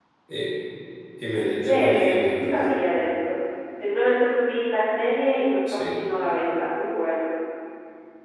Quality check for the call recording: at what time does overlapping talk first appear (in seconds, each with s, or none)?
1.3 s